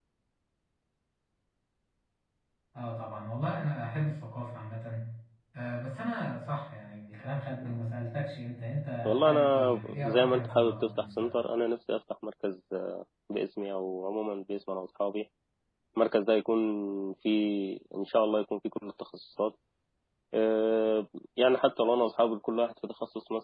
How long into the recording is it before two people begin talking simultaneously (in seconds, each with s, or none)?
9.1 s